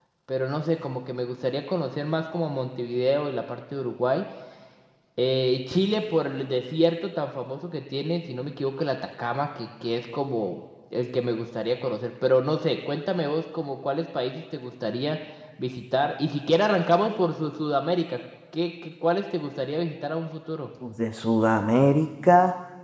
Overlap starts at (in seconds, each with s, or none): none